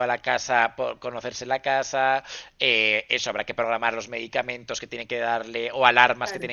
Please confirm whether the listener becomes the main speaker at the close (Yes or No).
No